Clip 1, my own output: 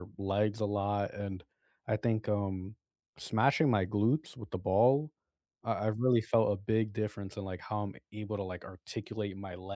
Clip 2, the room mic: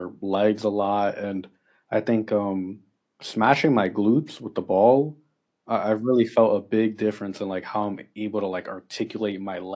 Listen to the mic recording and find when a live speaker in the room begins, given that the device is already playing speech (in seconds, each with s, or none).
none